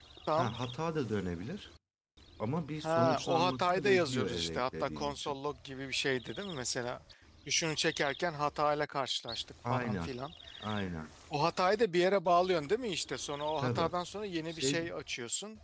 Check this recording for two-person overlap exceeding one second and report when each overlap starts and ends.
2.8-5.4

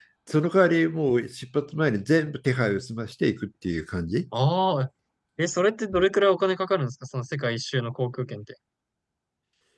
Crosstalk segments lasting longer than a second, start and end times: none

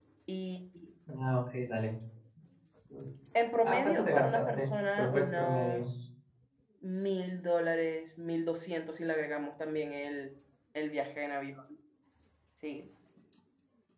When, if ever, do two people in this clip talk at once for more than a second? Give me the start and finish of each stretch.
3.6-5.8

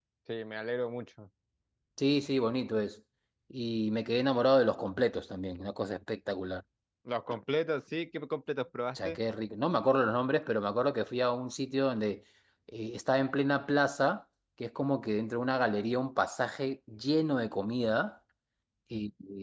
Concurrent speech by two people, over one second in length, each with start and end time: none

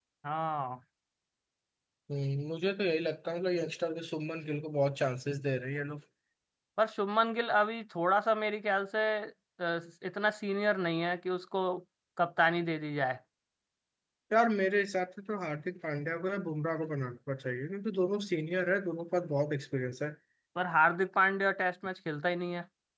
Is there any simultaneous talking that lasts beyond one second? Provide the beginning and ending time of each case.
none

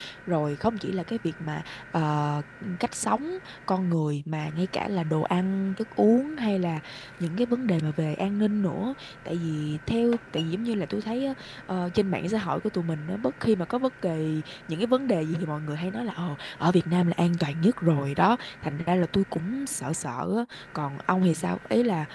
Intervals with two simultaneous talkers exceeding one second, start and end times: none

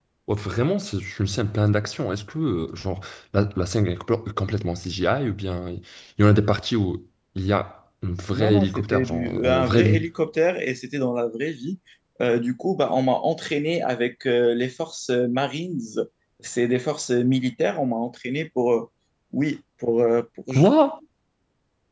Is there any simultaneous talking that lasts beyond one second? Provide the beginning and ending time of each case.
8.3-10.0

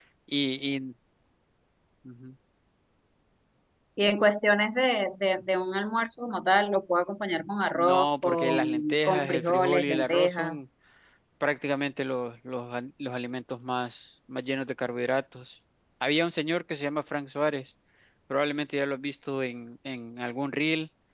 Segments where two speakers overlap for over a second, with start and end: 7.7-10.6

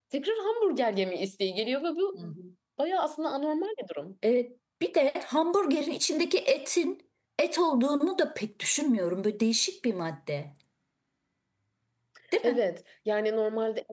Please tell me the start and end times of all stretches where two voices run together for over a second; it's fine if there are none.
none

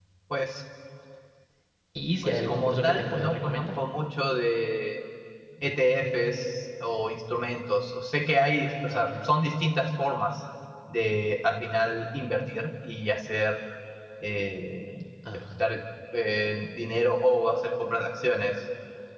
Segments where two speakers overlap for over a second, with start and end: 2.2-3.7

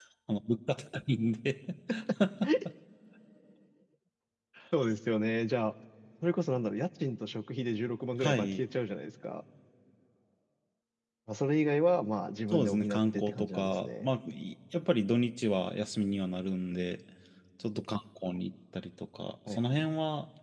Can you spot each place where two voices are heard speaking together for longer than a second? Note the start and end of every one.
12.5-14.1

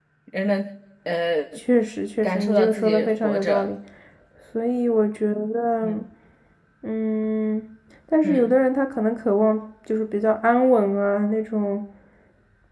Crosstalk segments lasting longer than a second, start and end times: 2.2-3.7

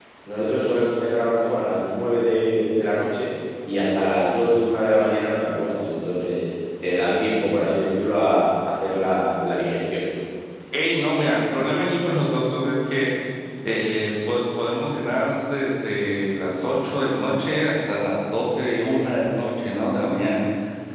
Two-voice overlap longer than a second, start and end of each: none

